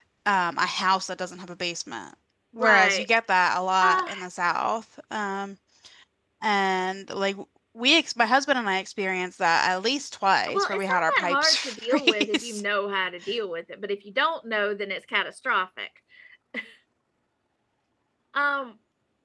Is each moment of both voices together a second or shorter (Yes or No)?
No